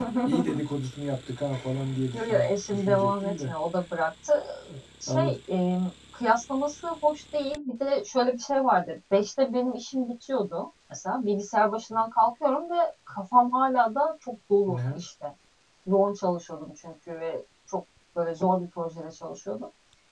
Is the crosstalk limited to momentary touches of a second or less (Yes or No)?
No